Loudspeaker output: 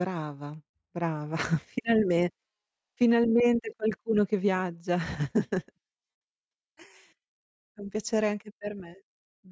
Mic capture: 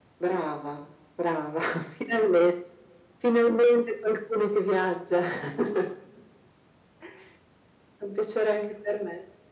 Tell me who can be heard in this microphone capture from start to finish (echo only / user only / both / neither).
echo only